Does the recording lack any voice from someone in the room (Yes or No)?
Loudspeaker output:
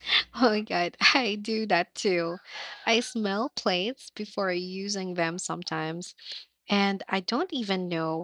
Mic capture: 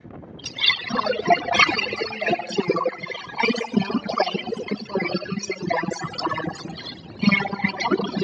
Yes